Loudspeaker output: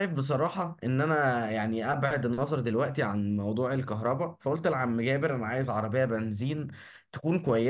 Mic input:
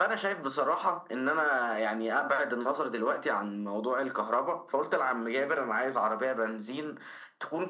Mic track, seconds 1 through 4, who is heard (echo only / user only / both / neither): echo only